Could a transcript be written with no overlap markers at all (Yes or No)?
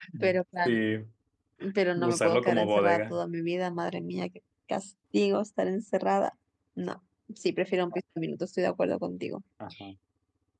No